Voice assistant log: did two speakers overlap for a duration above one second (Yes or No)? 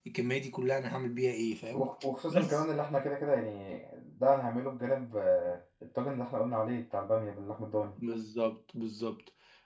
No